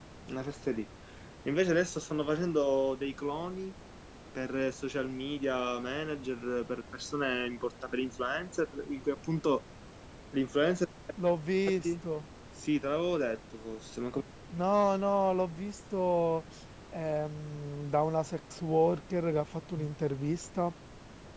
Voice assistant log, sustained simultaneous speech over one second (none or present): none